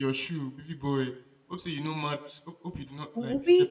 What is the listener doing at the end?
taking over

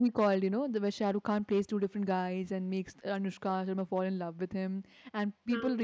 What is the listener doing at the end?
listening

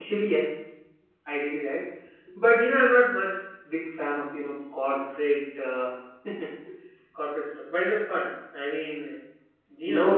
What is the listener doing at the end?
taking over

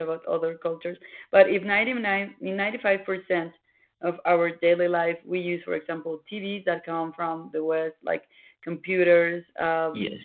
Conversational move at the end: listening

